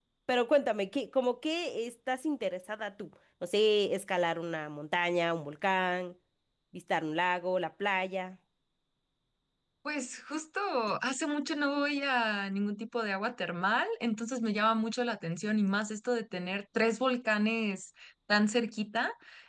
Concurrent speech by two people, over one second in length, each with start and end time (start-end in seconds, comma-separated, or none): none